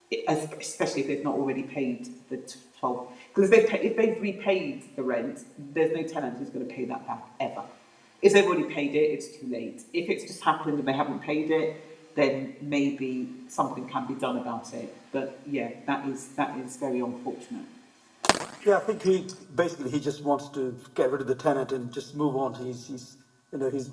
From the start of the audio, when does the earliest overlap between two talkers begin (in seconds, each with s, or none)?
none